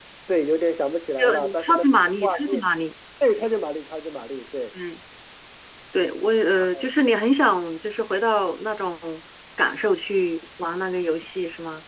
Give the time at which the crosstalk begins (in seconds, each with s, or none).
1.2 s